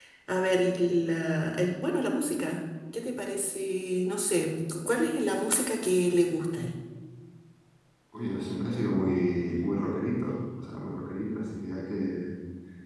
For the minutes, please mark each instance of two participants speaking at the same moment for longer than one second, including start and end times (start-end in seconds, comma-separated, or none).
none